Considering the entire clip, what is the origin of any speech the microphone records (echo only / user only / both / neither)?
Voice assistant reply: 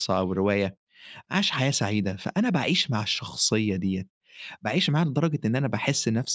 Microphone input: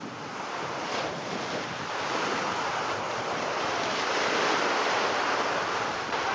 neither